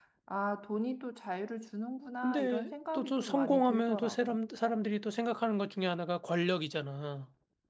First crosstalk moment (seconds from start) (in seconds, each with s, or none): 2.2 s